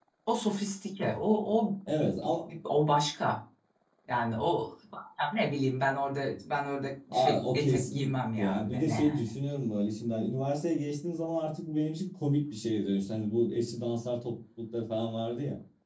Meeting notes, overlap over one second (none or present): present